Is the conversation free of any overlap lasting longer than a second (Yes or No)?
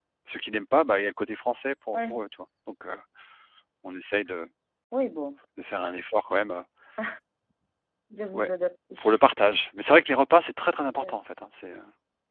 Yes